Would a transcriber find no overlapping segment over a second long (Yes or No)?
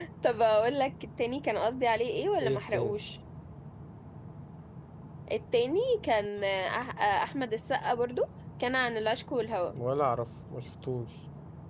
Yes